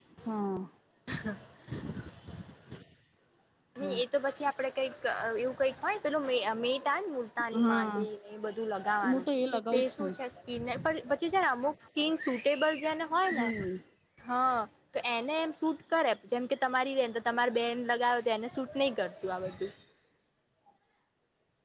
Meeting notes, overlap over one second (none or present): none